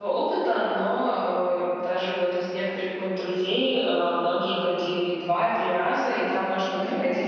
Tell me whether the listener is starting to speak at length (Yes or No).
No